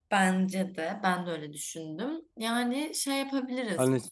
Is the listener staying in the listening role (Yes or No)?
No